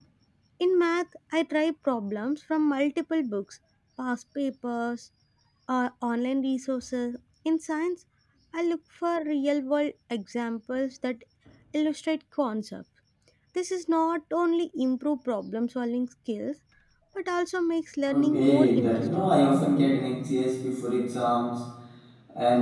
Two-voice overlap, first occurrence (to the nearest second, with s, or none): 18 s